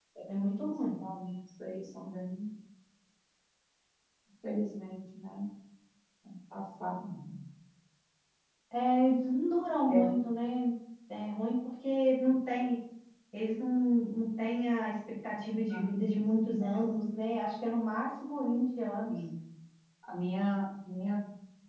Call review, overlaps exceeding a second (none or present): none